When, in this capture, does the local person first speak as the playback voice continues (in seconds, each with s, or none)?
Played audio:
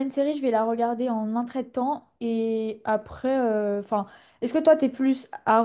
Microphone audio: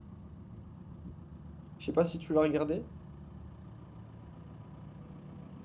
1.8 s